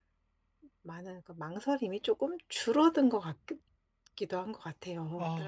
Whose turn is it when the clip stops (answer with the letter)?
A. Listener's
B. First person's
A